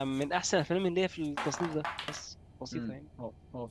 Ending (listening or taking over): taking over